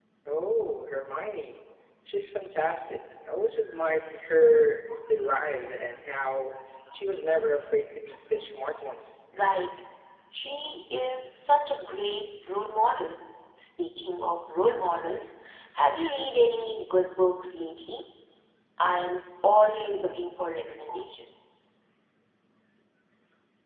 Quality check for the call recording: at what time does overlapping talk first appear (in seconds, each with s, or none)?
none